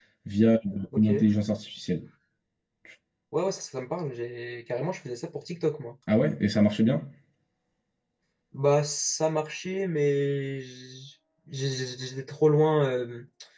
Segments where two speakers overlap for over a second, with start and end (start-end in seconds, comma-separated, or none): none